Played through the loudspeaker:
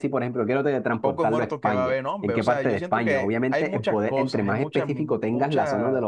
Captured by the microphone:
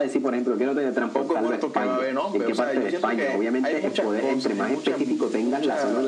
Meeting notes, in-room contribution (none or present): present